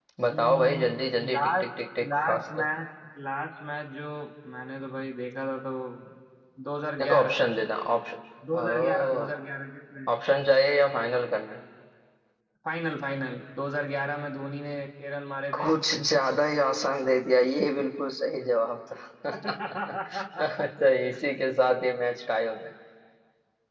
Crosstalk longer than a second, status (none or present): present